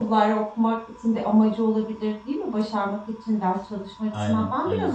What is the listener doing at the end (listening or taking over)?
listening